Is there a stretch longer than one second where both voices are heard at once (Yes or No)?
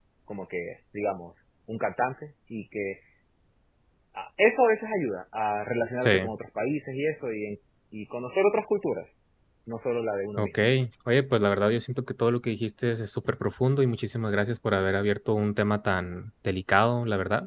No